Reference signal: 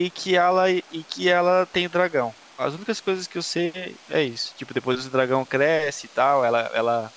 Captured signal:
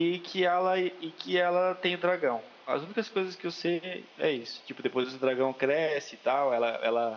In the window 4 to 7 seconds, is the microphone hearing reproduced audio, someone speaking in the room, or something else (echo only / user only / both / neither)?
echo only